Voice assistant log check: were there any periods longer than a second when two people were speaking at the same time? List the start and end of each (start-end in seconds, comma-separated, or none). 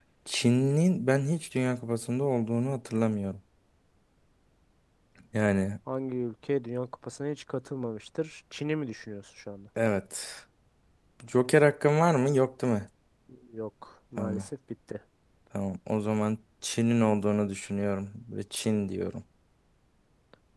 none